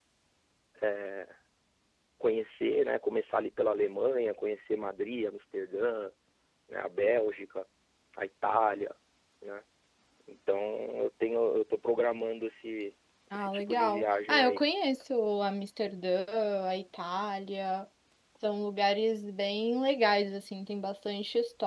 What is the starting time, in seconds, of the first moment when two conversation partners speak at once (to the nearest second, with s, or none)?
13 s